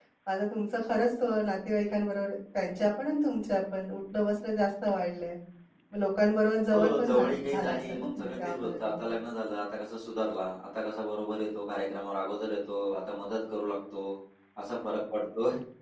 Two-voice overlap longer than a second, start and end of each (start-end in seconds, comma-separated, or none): 6.7-8.9